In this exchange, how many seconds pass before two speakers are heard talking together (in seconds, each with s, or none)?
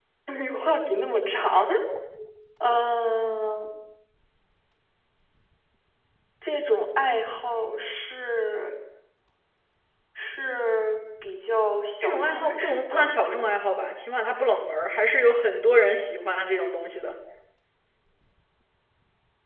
12.0 s